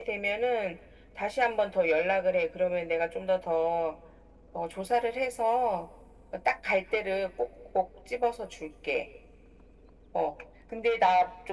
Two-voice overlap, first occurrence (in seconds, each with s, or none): none